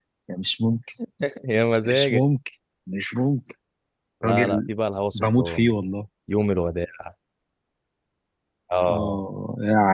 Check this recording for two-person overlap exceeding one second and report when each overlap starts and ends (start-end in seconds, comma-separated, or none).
none